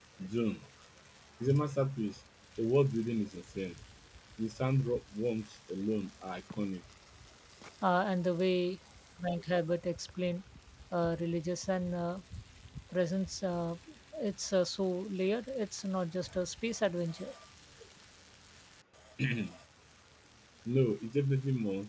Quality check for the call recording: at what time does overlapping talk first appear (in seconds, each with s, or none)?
none